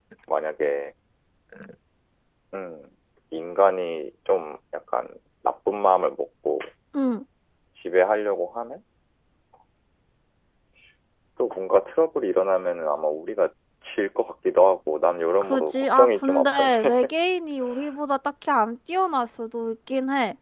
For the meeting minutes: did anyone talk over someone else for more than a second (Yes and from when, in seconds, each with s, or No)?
Yes, from 15.4 s